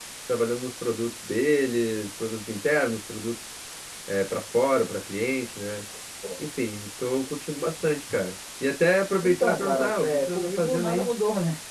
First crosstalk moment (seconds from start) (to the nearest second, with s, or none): 9 s